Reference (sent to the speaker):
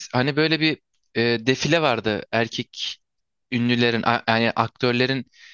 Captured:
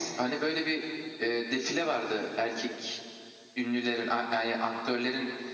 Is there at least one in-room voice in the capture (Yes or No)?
No